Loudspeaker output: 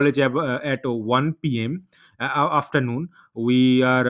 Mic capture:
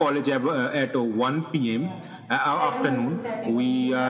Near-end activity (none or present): present